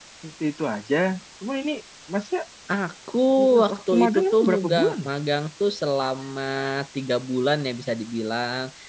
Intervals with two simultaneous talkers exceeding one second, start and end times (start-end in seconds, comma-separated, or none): 3.6-5.1